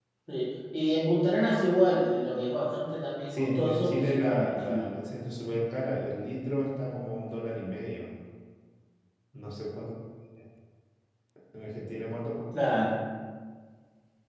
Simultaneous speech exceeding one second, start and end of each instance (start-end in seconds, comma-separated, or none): 3.3-4.9